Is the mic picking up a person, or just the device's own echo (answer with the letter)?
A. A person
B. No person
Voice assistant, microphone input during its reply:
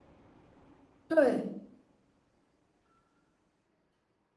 A